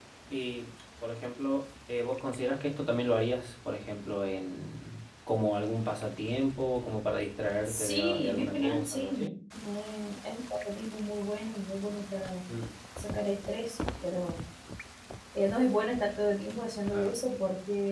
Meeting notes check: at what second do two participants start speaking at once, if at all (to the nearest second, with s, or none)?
8 s